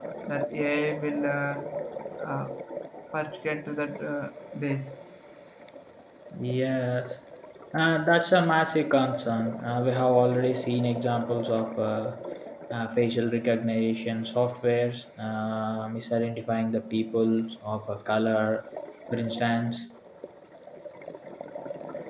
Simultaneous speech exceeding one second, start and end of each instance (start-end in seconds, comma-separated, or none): none